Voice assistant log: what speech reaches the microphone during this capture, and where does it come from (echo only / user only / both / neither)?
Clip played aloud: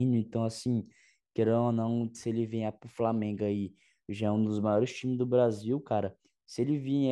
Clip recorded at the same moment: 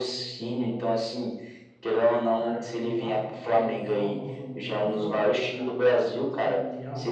both